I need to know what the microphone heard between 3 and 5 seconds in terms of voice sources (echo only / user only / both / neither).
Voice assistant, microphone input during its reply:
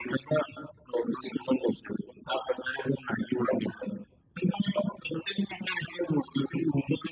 echo only